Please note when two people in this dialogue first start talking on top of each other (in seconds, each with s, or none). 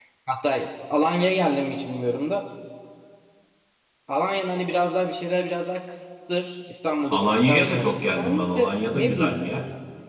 7.1 s